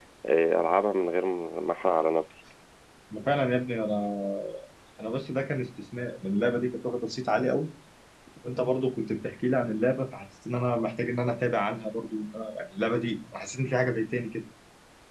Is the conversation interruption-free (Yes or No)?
Yes